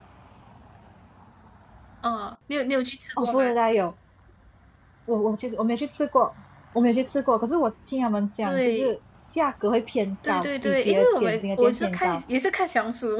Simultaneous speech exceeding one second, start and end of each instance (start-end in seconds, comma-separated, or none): 10.3-12.2